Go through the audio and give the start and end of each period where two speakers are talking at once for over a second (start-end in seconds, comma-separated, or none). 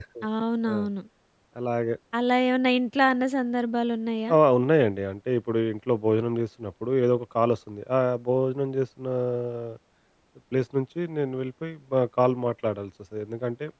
none